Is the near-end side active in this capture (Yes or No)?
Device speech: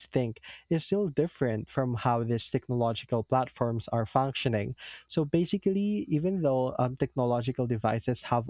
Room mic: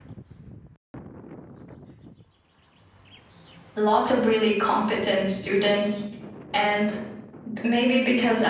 Yes